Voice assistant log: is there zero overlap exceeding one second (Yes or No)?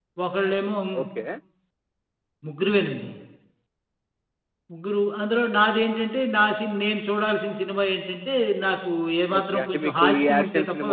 No